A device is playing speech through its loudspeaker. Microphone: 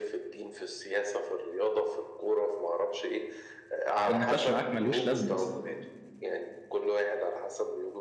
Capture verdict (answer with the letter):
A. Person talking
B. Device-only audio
A